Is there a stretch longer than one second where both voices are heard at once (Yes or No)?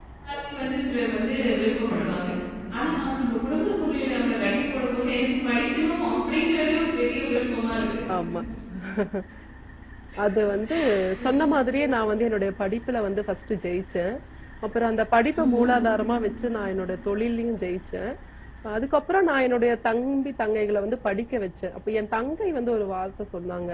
No